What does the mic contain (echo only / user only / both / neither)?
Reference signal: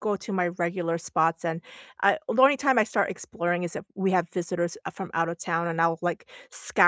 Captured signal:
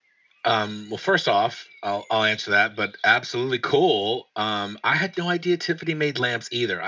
user only